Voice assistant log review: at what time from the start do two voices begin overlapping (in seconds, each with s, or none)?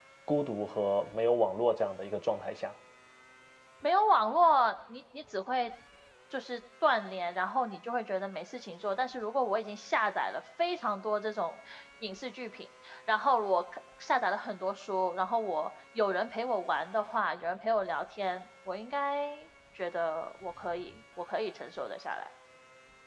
none